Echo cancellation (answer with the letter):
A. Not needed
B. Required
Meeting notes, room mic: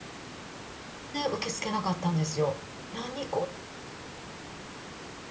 A